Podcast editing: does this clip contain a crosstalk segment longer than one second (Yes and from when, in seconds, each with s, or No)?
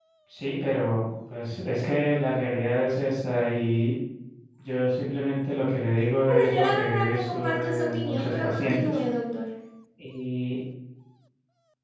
Yes, from 6.3 s